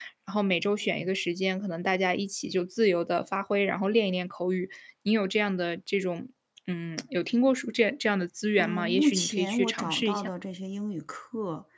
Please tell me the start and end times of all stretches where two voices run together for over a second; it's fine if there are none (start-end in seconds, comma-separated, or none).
8.6-10.3